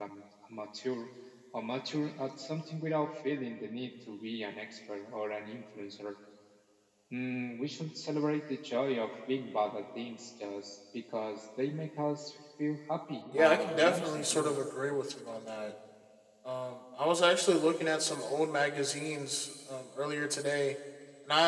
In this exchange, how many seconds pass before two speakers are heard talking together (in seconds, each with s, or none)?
13.3 s